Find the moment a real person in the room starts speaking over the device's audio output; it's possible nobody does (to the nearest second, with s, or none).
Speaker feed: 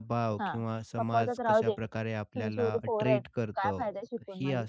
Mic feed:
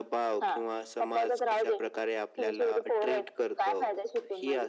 none